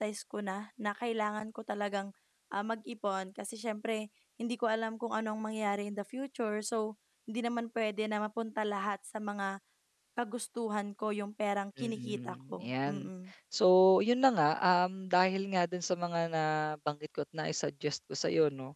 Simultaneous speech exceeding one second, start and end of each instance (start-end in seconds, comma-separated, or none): 11.8-13.1